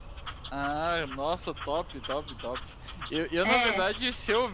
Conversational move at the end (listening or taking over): listening